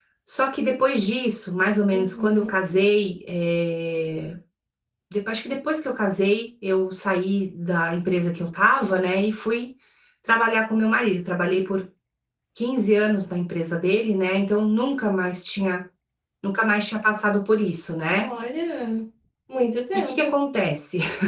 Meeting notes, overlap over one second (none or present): none